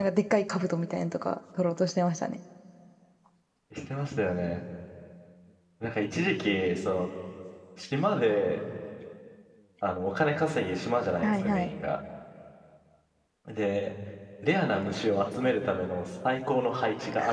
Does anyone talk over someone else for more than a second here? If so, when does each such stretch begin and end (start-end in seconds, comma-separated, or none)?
none